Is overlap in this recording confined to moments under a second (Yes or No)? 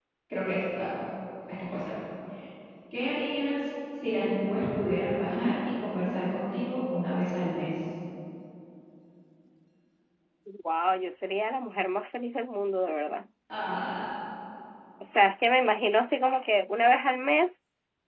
Yes